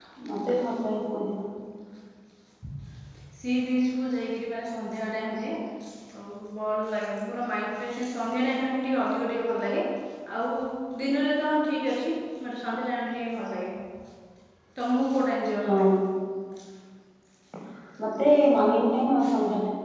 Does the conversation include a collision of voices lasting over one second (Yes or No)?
No